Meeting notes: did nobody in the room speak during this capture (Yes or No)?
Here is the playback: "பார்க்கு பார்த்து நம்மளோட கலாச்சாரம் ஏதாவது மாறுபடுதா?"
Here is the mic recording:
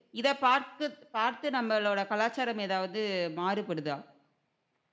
Yes